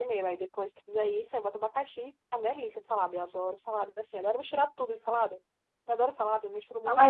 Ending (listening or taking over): taking over